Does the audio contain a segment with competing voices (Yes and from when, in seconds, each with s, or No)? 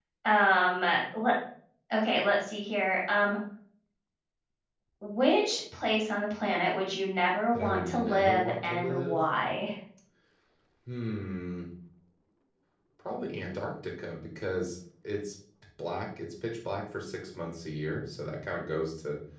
Yes, from 7.5 s